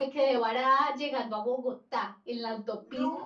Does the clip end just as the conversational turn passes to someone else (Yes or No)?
No